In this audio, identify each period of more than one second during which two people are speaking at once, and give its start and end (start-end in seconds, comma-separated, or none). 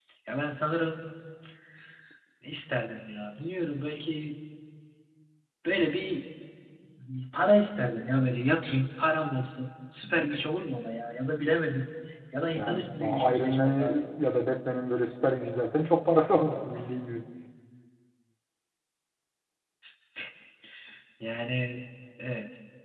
12.6-14.1